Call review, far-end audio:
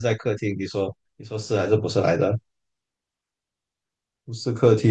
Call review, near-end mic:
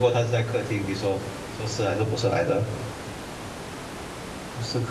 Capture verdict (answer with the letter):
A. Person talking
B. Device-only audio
B